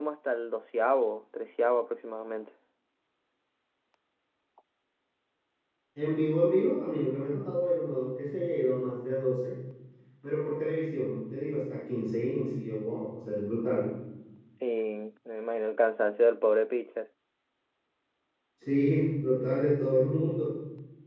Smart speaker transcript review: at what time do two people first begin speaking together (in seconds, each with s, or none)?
none